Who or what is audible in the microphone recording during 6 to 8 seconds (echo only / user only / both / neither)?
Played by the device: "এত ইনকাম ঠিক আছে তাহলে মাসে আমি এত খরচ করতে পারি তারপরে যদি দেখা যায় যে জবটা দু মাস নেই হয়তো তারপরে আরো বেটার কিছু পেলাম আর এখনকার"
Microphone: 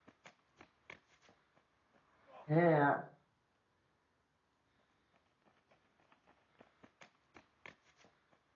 neither